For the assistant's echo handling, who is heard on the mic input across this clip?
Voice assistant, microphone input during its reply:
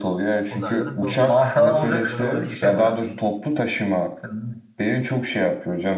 both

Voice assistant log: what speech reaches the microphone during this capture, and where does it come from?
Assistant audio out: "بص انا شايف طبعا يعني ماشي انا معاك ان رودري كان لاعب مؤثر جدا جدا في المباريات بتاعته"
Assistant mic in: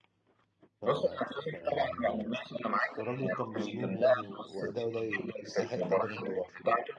both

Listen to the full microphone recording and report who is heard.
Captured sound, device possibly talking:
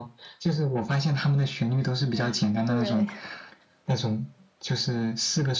both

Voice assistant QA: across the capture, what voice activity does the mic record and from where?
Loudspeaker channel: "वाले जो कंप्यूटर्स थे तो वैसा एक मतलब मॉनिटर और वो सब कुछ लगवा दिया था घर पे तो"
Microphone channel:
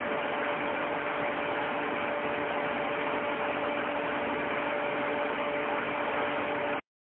neither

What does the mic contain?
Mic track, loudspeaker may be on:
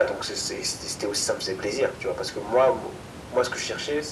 echo only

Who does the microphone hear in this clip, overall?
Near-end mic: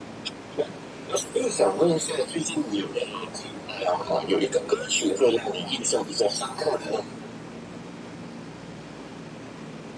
echo only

